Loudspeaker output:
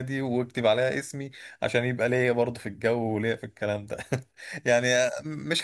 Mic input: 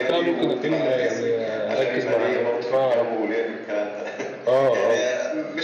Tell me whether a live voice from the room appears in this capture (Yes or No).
Yes